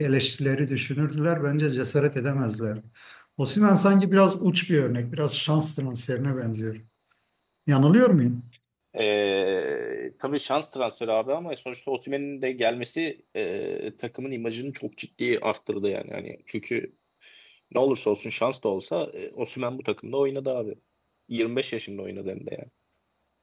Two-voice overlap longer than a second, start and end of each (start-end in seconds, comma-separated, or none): none